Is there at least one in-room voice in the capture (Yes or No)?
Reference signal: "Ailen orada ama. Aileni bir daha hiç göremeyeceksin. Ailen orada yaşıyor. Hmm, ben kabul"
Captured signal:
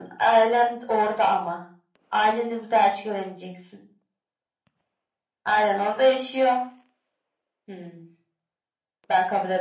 No